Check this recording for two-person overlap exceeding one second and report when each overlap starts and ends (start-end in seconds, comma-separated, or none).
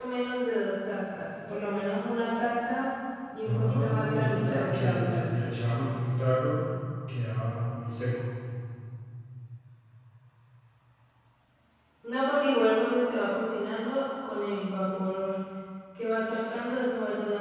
3.5-5.3